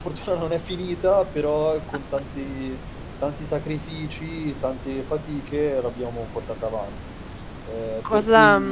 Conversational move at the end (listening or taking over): taking over